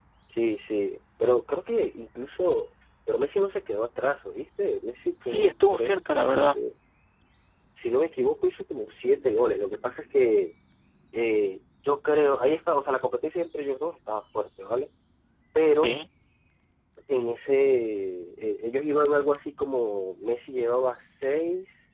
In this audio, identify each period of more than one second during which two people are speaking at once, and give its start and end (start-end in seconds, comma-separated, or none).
5.2-6.6